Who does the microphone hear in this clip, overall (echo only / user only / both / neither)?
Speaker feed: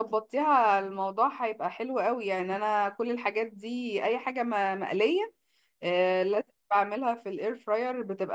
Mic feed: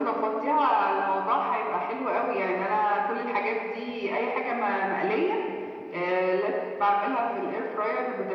echo only